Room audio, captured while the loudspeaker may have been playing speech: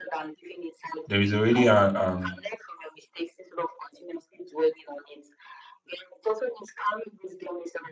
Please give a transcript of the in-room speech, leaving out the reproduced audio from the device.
there is already a um,

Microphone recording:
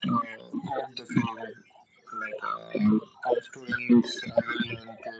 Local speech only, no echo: none

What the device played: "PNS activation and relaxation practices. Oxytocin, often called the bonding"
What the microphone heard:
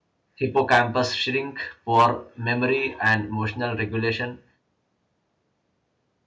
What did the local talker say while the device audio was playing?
hippocampus shrink, poor memory and emotional regulation.

